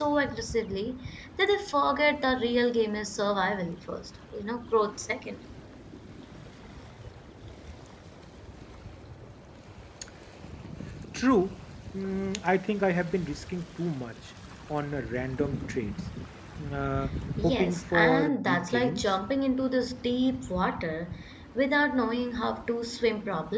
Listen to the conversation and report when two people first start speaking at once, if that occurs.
17.4 s

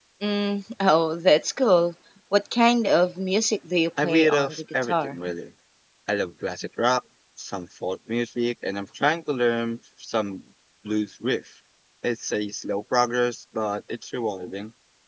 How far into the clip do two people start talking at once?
4.0 s

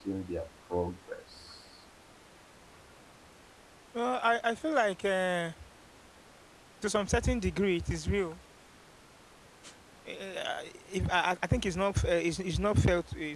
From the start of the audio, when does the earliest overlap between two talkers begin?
none

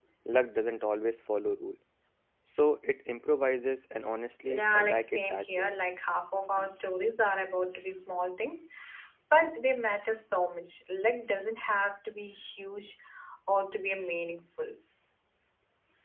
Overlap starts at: 4.5 s

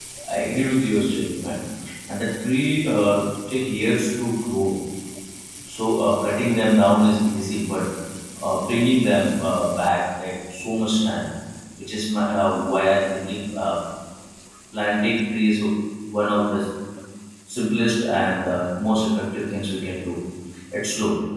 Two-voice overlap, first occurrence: none

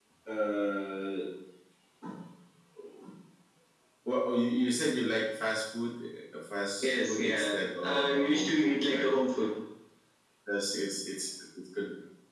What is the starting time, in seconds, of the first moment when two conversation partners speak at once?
6.8 s

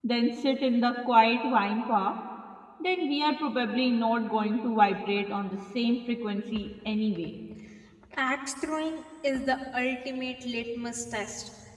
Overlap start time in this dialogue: none

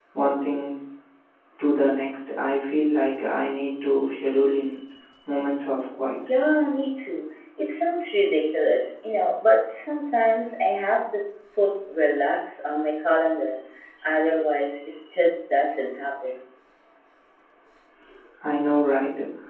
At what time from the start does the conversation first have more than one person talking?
none

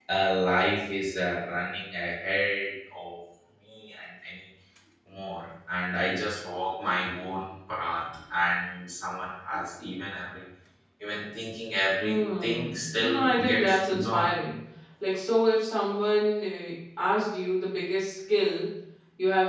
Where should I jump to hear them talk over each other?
12.0 s

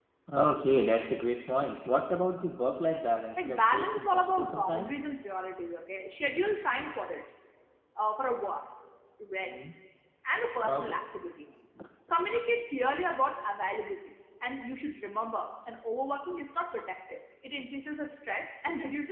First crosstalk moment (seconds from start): 3.4 s

